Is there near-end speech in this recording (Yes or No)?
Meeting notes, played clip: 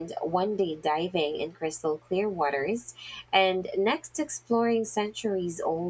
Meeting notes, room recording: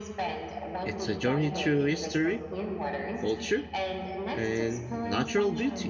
Yes